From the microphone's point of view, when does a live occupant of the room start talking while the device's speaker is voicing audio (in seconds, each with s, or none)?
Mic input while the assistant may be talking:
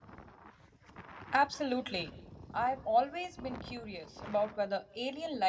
1.3 s